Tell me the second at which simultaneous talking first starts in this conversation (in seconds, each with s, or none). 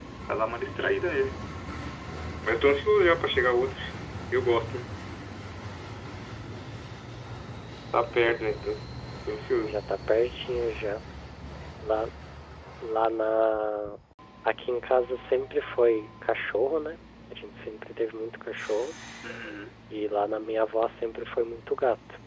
none